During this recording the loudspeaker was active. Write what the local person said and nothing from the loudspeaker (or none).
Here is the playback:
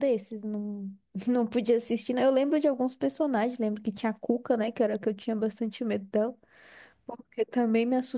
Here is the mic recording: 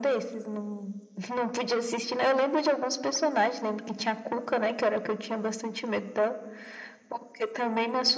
none